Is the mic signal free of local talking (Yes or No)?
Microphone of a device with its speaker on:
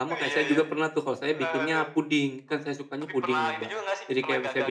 No